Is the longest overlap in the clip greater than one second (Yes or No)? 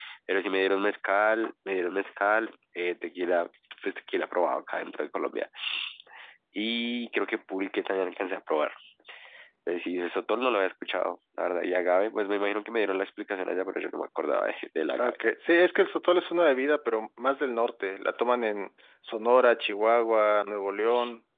No